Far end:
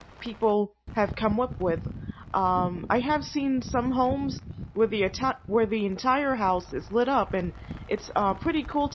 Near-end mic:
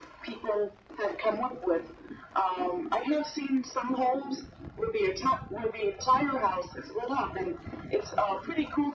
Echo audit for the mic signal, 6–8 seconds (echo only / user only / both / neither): echo only